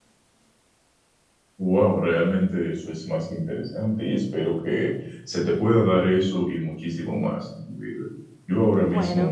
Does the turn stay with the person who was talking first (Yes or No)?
Yes